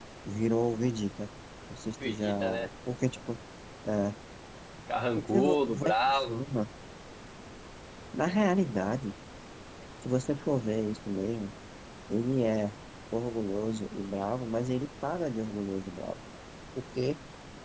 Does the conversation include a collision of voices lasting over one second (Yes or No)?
Yes